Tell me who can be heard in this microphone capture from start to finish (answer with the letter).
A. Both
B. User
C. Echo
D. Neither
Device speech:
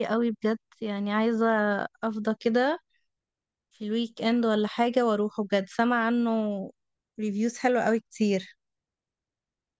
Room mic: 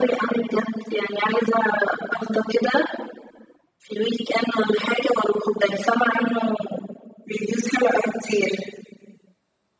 C